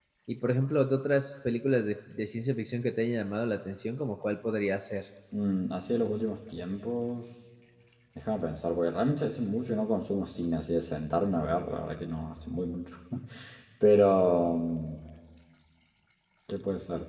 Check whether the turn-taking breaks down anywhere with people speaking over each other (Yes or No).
No